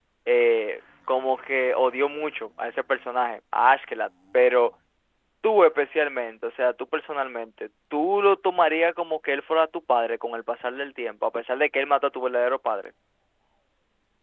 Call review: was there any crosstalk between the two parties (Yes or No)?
No